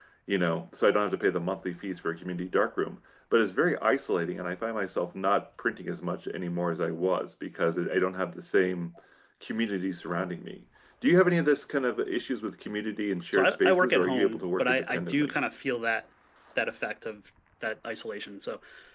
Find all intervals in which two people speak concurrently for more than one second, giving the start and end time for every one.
13.3-15.3

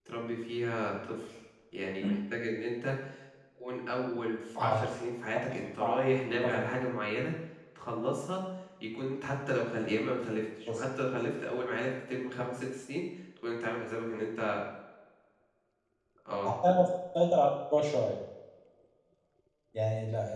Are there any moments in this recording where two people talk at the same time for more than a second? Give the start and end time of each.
none

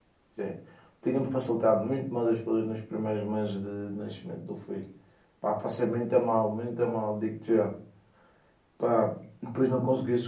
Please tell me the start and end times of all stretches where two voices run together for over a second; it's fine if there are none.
none

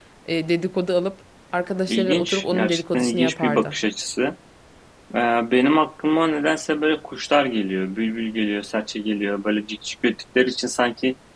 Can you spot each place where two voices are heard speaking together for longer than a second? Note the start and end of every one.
1.9-3.8

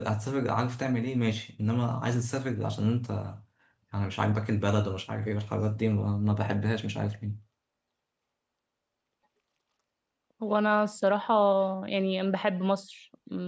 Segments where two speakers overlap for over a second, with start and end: none

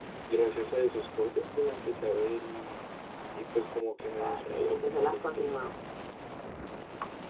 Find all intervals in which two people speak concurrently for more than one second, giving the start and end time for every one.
4.2-5.6

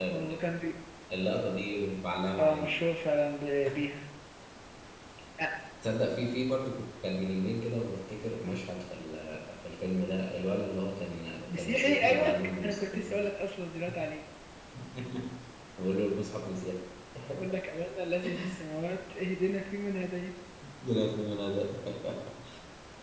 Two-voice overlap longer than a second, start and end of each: 11.5-13.0

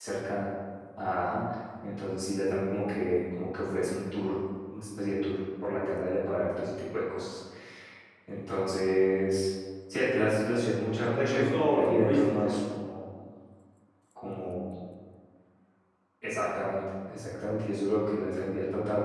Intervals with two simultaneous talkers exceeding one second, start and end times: 11.1-12.6

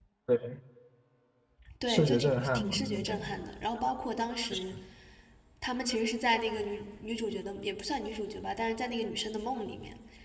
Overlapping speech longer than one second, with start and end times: 1.9-3.4

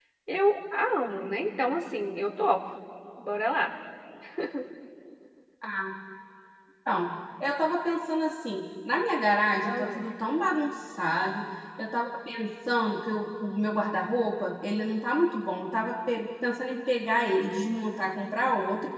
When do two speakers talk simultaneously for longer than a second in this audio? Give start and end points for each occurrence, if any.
none

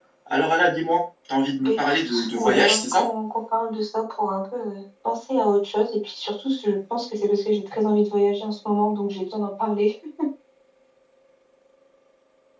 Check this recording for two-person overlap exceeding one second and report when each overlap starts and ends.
1.6-3.1

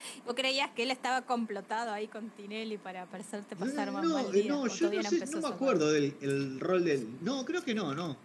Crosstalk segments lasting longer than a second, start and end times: 3.6-5.8

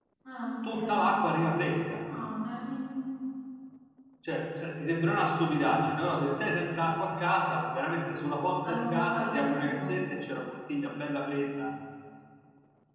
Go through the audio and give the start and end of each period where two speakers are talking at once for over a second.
8.6-10.0

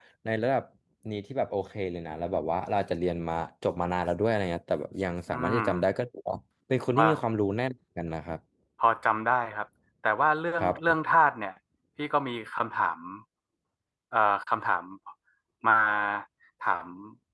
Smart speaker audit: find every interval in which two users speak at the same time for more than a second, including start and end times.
none

